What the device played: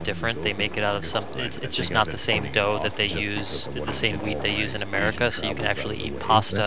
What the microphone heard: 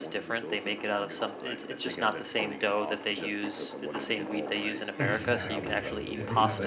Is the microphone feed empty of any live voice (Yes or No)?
No